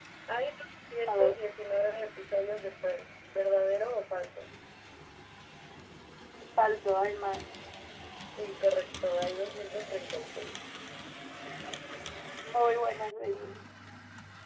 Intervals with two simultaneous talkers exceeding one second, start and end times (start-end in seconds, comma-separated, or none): none